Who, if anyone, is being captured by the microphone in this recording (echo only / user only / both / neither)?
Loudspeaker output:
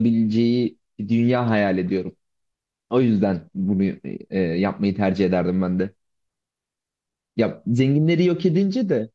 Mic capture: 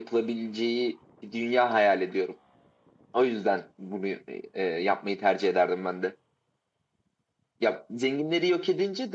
echo only